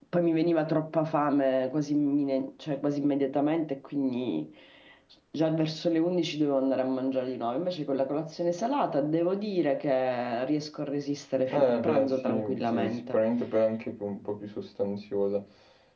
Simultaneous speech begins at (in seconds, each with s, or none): 11.5 s